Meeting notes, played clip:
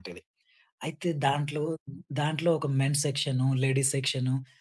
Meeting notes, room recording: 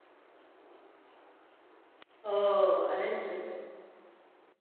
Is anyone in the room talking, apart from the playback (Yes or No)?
Yes